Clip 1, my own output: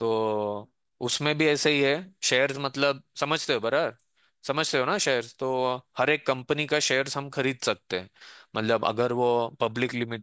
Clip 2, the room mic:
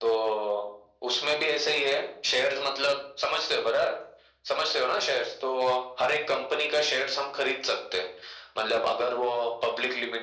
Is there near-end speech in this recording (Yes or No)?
No